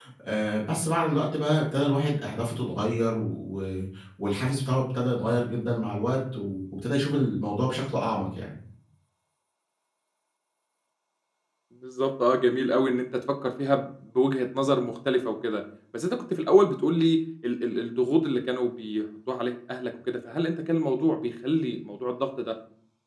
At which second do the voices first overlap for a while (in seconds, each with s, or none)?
none